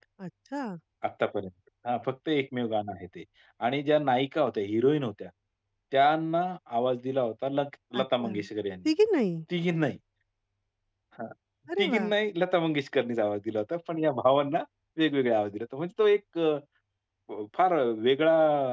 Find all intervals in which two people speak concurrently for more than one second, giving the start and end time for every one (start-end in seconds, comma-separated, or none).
none